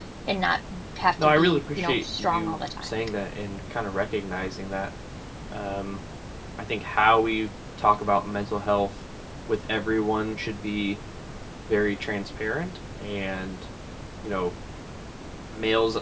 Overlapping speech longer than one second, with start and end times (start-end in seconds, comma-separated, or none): 1.2-3.0